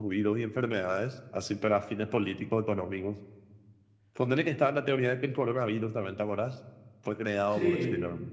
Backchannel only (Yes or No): Yes